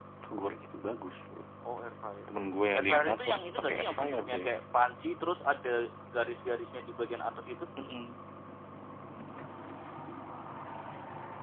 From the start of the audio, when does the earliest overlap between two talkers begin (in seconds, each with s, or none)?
2.7 s